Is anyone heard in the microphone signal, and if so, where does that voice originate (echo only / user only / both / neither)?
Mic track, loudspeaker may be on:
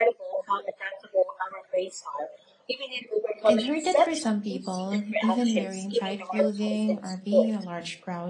both